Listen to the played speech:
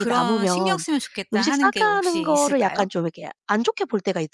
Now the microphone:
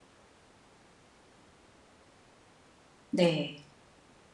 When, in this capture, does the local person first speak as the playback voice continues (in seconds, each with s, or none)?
3.1 s